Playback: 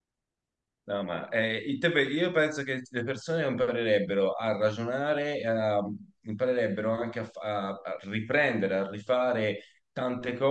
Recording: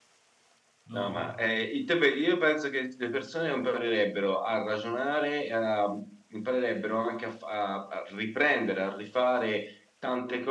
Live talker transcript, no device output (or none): no,